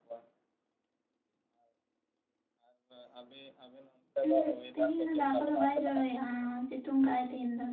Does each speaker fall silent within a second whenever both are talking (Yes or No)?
No